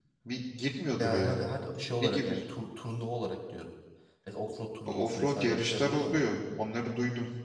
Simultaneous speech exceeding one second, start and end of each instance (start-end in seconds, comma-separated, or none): 4.9-6.2